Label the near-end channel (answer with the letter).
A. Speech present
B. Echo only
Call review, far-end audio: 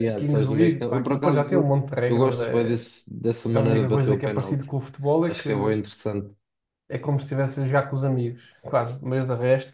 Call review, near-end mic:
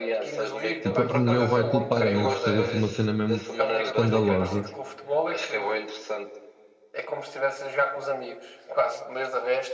A